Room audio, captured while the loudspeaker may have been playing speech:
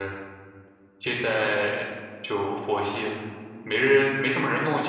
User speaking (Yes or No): Yes